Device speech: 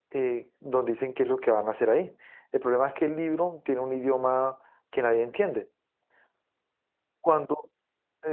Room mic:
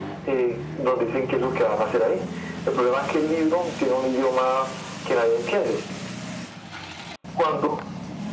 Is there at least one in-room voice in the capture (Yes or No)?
No